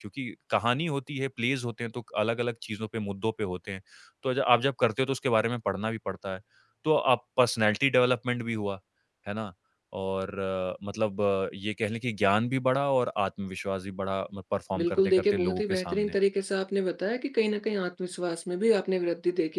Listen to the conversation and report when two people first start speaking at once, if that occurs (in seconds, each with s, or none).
14.8 s